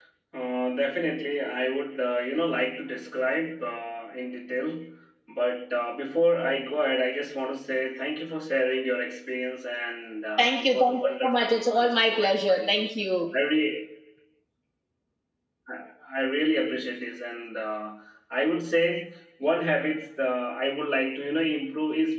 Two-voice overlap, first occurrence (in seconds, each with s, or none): 10.4 s